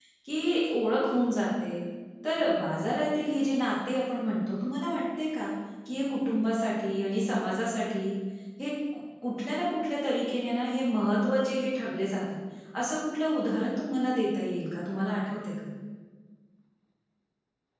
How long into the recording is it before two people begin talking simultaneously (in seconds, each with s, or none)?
none